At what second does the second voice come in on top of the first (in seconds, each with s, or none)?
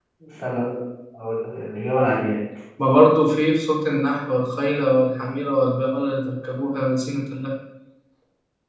none